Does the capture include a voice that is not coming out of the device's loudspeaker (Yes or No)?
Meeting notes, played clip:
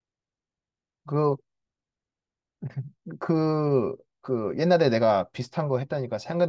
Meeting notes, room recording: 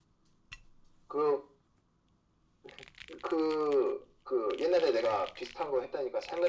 No